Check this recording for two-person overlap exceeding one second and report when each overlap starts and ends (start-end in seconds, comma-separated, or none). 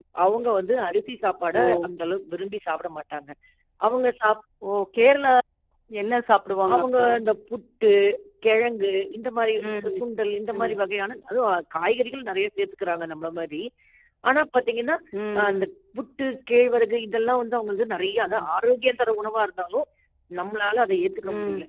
none